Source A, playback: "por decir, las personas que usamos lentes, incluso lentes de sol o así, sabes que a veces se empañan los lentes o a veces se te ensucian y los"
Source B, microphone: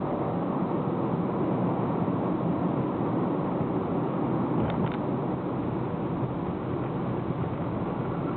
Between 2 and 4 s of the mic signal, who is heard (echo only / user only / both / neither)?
neither